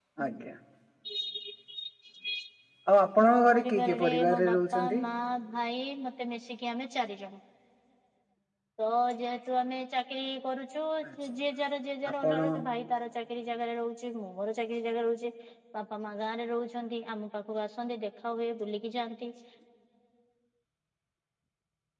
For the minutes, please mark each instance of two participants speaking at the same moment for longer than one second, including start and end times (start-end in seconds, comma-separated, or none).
3.3-5.0